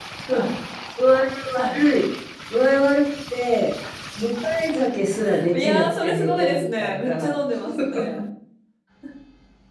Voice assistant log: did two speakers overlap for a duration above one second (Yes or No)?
Yes